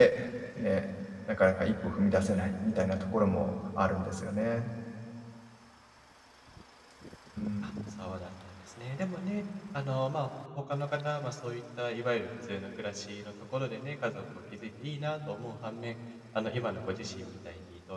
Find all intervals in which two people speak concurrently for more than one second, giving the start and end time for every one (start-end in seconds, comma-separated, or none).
none